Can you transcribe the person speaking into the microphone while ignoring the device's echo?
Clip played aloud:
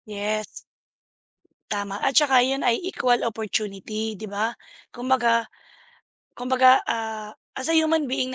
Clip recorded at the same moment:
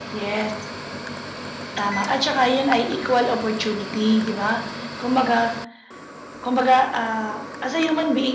none

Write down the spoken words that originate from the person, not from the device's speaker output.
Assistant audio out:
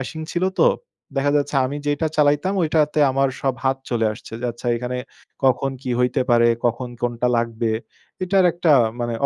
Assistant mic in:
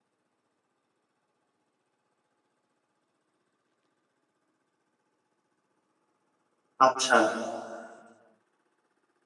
আচ্ছা।

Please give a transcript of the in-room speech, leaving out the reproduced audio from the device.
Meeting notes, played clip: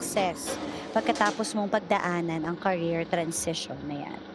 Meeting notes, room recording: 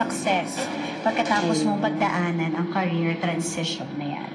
Ayun.

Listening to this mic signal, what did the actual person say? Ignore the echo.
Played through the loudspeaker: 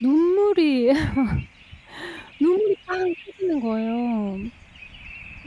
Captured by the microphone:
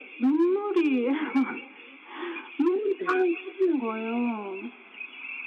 네.

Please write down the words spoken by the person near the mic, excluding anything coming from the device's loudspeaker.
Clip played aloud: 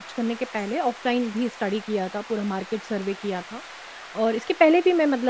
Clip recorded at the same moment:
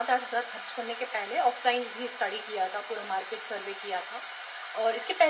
none

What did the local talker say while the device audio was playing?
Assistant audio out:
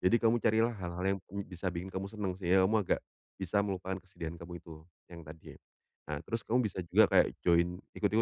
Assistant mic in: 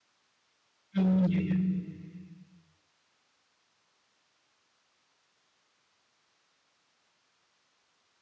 Mmm, ya ya.

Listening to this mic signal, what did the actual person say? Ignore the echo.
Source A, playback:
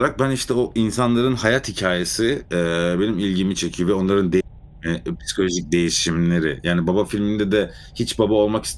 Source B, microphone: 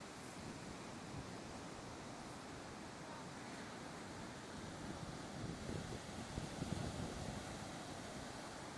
none

